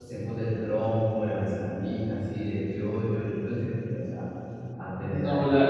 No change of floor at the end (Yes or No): No